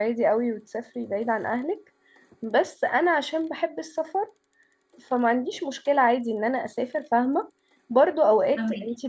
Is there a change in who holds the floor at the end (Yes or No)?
No